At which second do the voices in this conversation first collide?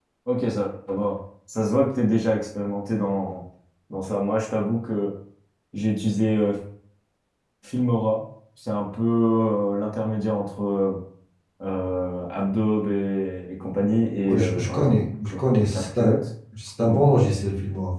14.2 s

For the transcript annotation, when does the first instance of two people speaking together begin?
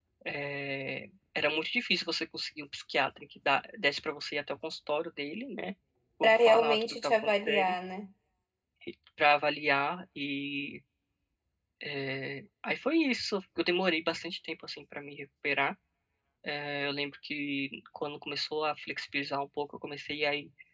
6.2 s

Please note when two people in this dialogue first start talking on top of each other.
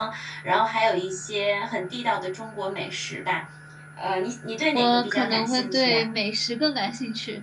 4.8 s

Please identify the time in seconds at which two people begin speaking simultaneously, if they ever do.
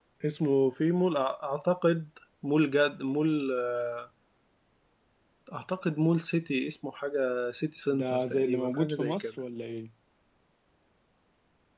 7.9 s

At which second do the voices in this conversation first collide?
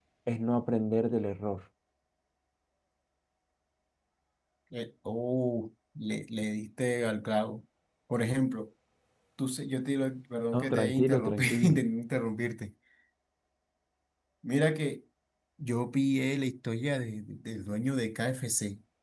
10.5 s

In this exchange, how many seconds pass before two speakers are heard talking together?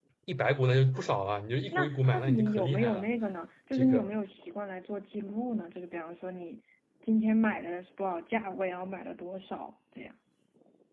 1.7 s

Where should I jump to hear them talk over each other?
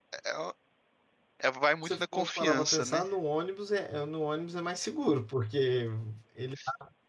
1.8 s

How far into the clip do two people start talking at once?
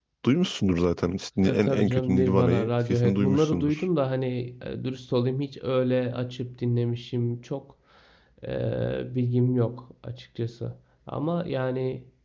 1.4 s

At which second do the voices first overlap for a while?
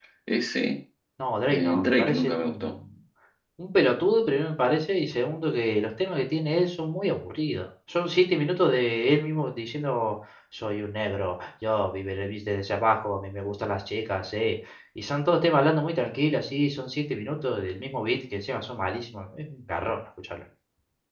1.5 s

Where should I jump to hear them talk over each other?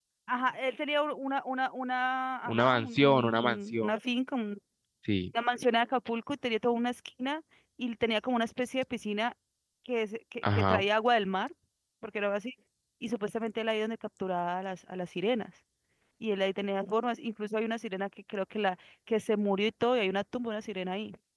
2.5 s

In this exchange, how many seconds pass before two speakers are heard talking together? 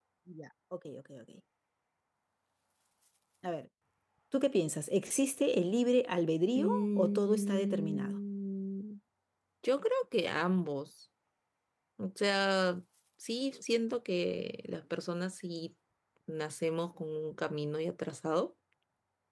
6.5 s

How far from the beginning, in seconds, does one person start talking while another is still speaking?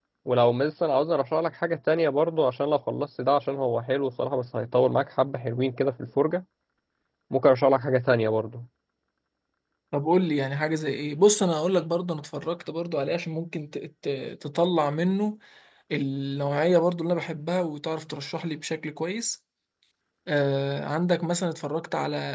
none

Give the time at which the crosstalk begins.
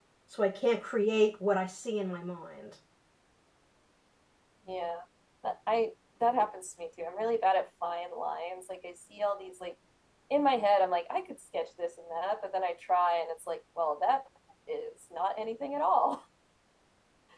none

